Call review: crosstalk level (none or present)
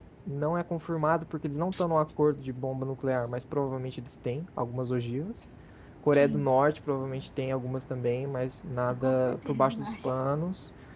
present